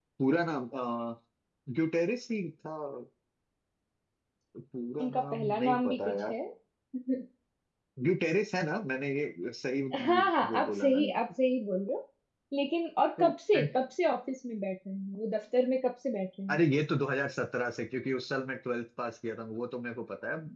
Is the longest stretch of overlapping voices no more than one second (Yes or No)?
No